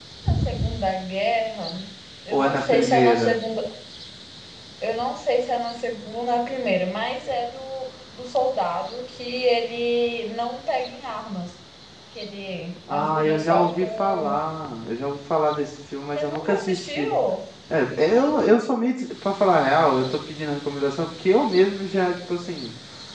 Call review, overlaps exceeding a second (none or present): present